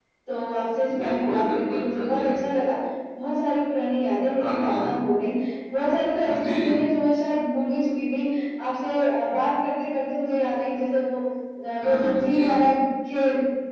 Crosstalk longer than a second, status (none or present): present